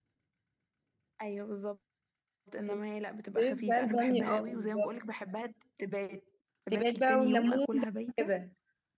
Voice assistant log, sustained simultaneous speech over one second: present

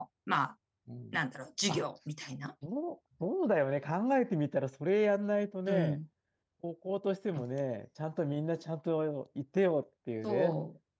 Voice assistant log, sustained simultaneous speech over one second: none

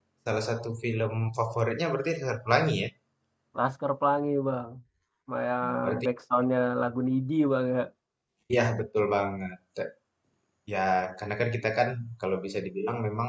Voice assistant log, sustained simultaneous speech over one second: none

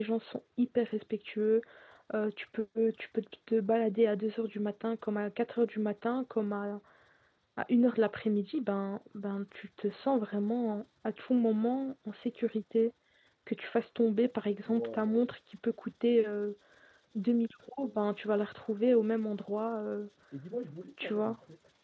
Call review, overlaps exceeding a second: none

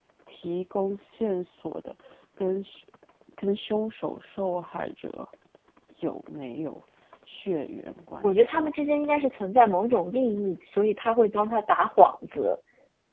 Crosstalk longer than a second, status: none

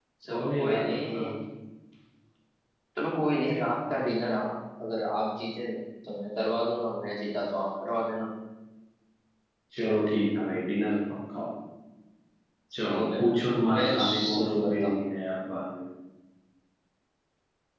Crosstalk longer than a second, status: present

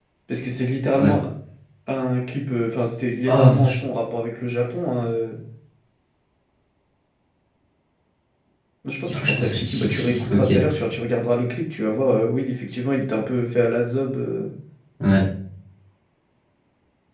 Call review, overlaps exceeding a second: present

